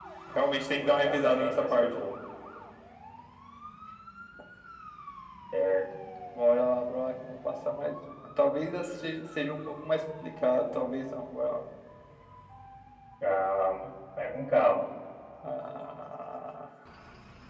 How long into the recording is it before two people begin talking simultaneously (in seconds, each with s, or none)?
0.8 s